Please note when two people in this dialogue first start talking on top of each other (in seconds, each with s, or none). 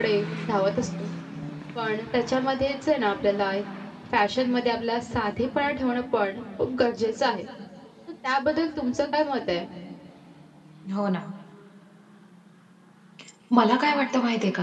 none